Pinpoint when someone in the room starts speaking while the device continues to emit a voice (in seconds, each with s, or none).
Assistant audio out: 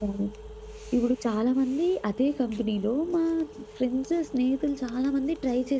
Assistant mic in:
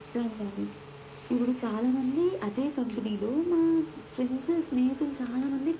none